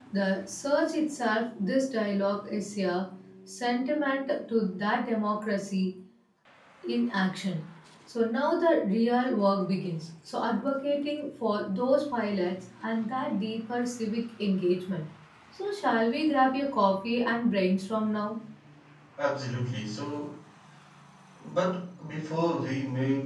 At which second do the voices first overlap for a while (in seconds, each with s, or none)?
none